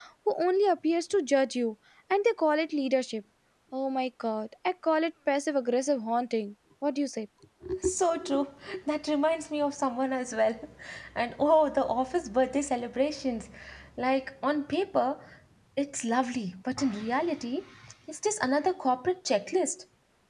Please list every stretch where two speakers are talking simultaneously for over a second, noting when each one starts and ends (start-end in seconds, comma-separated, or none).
none